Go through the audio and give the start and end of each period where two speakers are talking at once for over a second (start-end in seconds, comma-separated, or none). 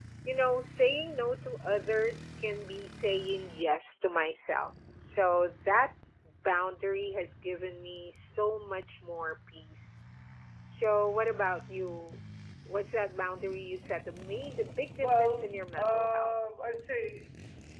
15.0-16.3